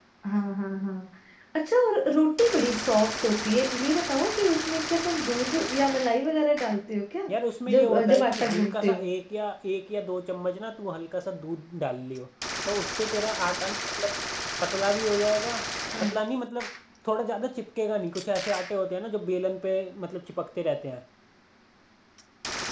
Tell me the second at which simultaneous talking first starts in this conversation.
7.7 s

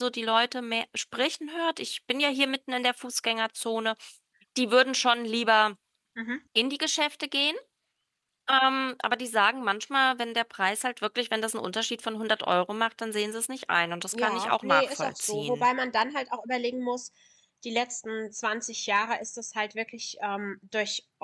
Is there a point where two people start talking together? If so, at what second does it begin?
14.1 s

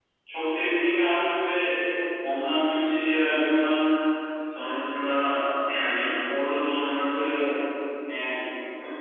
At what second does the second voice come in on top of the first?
none

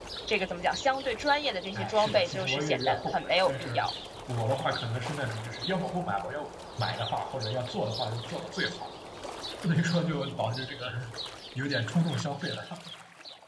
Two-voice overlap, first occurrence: 1.7 s

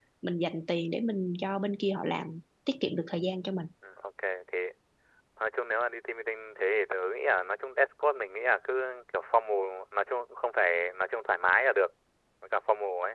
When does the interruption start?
none

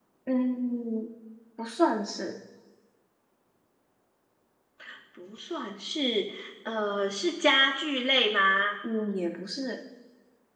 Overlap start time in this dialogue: none

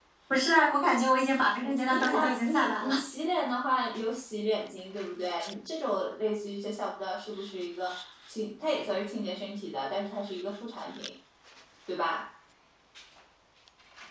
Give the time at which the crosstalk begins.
1.6 s

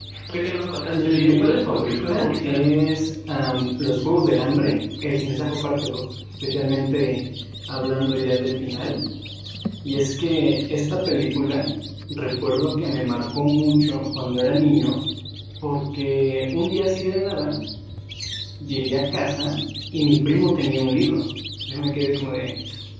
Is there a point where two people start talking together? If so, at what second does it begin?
0.9 s

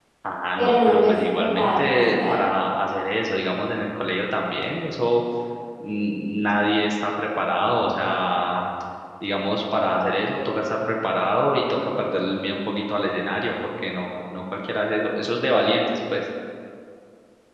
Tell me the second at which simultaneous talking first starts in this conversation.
0.6 s

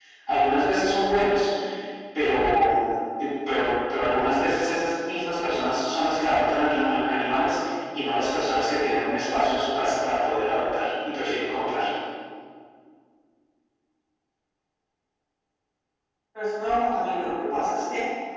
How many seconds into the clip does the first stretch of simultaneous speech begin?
none

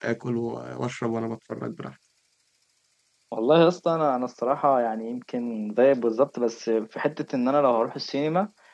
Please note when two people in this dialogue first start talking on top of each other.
none

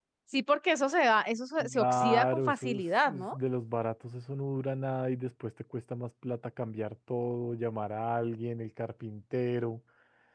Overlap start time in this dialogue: 1.6 s

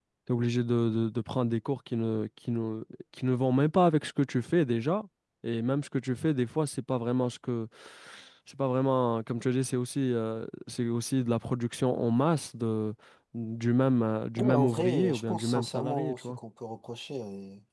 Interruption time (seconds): 14.4 s

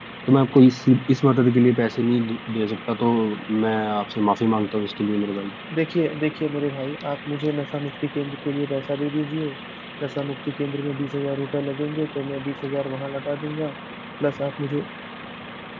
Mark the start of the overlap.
none

